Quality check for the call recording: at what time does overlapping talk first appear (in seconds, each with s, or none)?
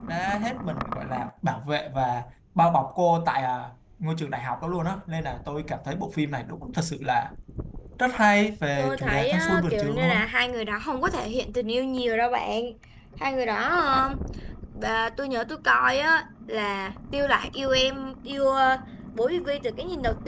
8.8 s